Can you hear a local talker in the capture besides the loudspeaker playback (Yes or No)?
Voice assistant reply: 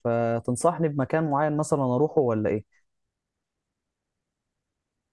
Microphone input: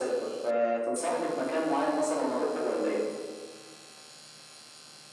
No